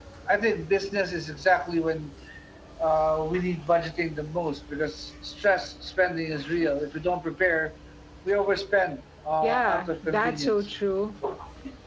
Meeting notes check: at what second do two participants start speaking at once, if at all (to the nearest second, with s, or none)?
9 s